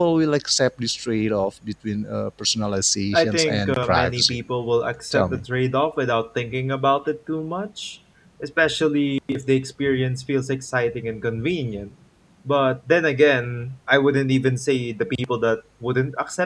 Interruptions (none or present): present